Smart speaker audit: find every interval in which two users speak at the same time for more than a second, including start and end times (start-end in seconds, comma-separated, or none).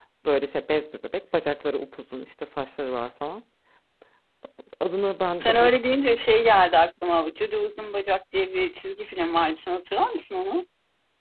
none